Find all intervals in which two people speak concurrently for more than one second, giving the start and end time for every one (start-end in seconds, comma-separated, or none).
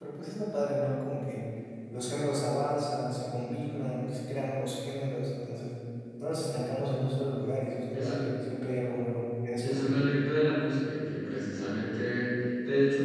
none